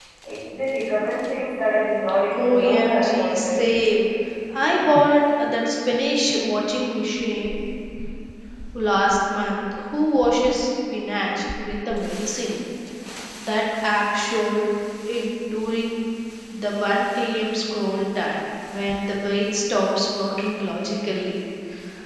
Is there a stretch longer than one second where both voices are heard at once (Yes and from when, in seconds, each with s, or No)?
Yes, from 2.3 s